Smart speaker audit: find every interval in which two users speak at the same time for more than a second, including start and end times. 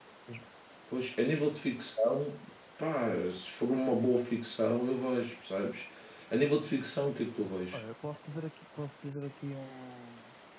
none

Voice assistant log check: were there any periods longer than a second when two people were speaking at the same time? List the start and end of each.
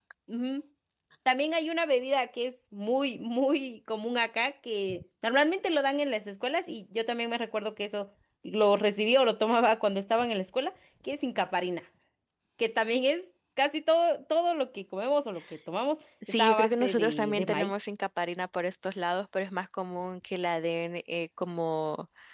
16.3-17.8

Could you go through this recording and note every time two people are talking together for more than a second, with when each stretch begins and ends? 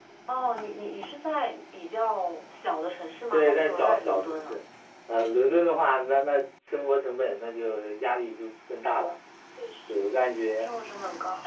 3.3-4.6

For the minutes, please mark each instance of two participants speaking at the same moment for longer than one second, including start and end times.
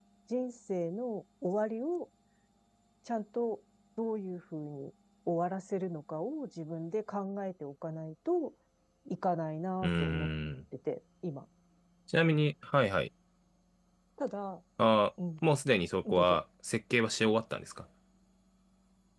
none

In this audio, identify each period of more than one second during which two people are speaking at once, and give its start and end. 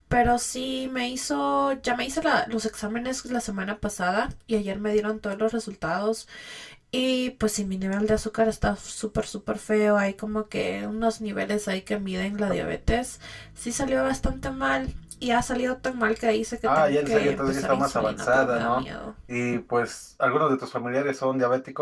16.7-18.8

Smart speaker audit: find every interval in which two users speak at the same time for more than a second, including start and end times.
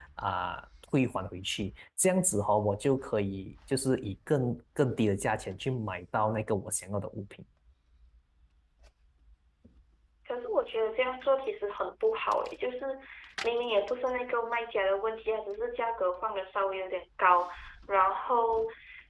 none

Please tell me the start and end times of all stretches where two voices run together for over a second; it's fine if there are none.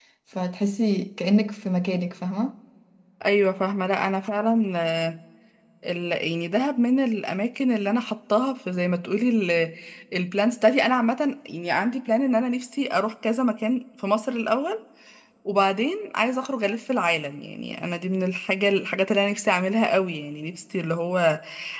none

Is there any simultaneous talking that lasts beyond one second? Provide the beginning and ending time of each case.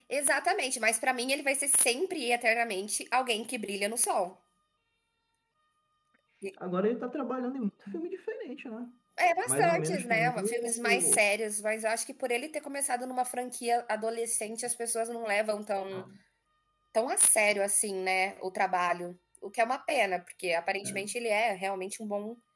9.5-11.2

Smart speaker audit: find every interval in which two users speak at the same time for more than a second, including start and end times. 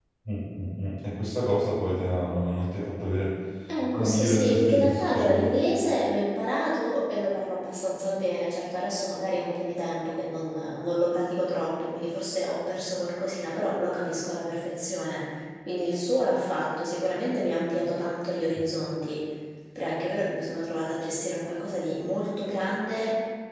3.9-5.5

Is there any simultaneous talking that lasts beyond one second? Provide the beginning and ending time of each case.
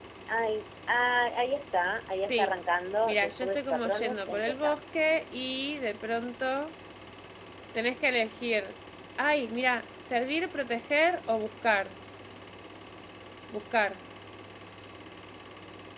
3.0-4.8

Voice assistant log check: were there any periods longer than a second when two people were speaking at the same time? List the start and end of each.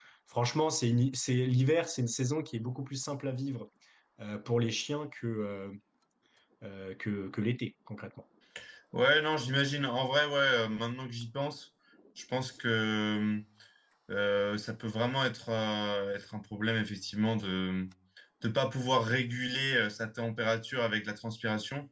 none

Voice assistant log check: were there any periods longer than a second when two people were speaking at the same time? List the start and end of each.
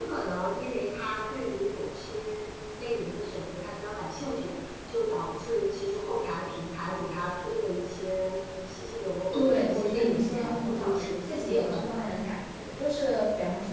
9.3-11.9

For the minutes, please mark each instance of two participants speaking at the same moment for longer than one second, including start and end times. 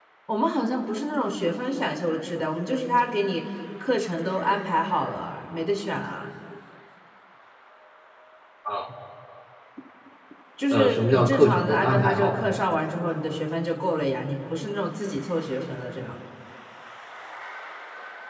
10.7-12.5

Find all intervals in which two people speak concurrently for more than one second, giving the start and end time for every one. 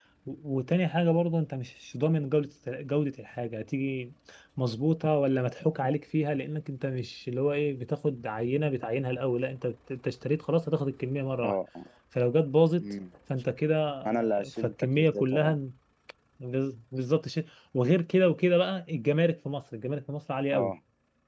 14.1-15.6

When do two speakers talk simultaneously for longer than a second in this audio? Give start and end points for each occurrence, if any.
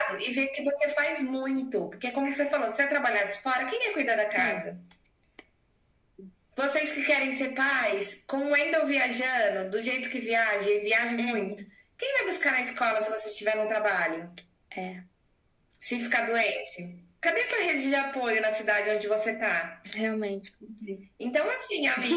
none

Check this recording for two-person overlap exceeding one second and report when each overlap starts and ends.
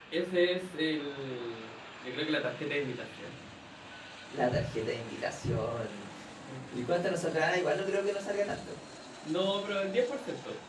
none

